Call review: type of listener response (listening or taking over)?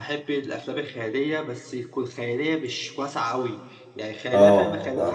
listening